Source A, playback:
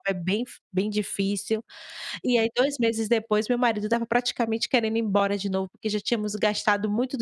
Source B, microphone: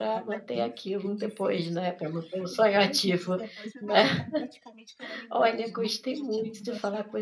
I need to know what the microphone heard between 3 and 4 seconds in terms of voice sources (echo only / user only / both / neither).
both